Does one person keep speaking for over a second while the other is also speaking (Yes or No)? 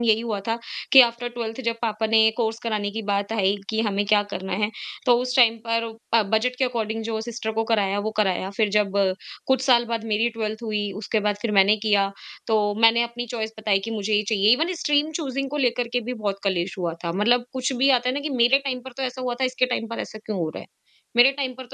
No